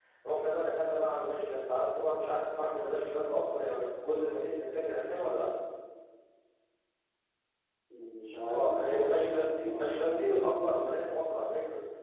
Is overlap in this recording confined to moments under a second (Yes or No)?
No